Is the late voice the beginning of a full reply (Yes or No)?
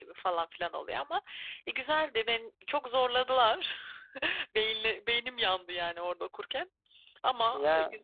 Yes